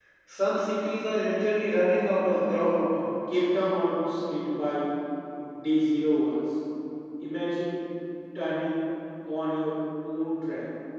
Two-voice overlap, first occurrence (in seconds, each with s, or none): none